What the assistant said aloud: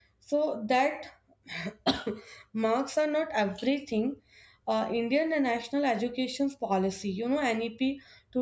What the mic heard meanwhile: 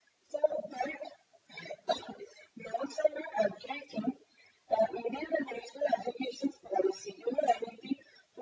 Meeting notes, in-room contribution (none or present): none